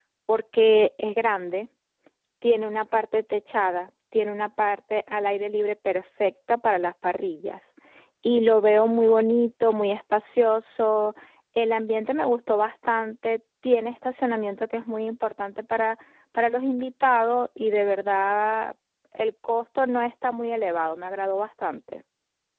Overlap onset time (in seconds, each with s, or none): none